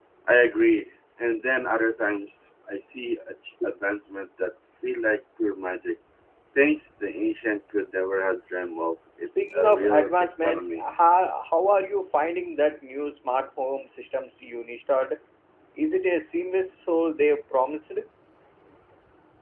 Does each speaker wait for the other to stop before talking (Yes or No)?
No